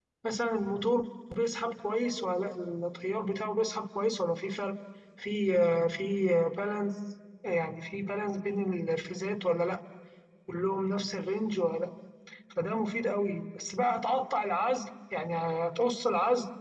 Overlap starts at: none

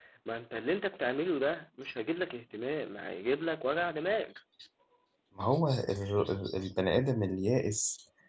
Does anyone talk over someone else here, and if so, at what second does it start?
none

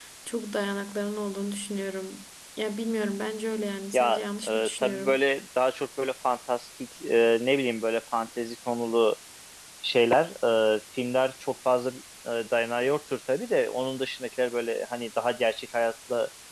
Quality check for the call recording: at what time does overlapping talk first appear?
4 s

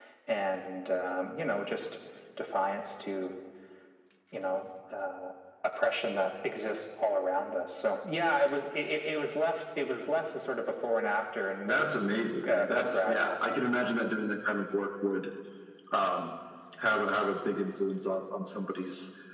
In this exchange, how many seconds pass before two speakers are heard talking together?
12 s

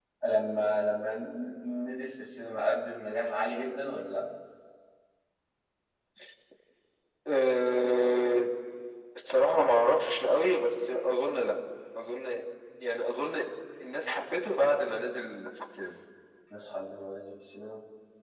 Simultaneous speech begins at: none

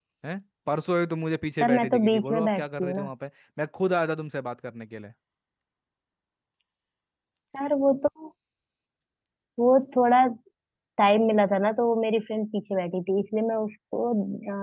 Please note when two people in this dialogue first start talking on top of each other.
2 s

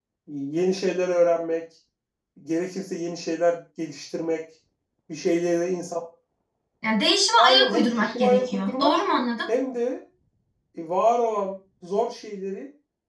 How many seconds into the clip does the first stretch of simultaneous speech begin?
7 s

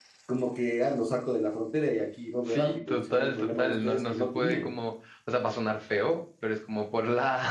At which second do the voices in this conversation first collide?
2 s

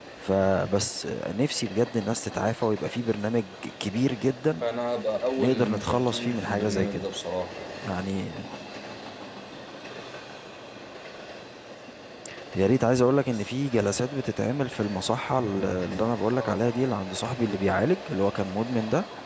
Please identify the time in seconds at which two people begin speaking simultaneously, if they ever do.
5 s

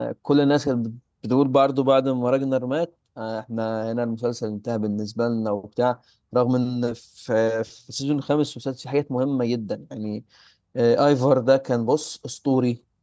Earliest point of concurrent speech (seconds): none

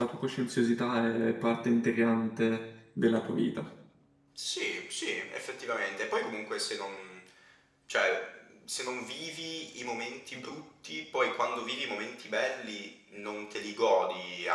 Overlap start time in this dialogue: none

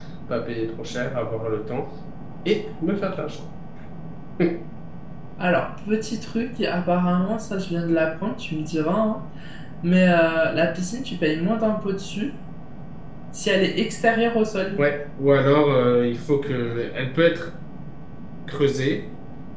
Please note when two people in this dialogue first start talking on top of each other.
none

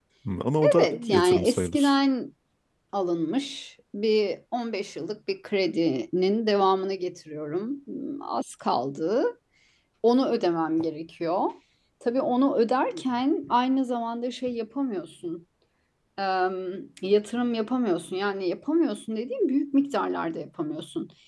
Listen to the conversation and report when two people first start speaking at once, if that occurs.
1 s

